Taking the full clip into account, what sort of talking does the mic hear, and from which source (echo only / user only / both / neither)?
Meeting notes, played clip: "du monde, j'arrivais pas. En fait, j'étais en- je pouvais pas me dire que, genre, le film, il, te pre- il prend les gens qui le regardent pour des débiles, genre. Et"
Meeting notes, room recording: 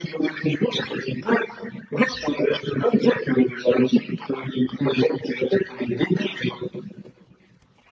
echo only